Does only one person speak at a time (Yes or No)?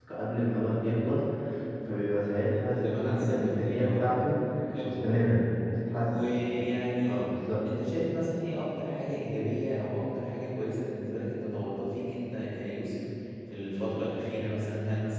No